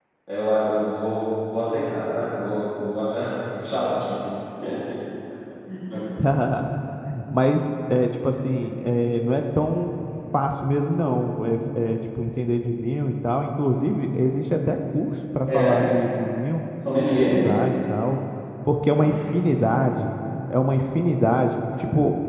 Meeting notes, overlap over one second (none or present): none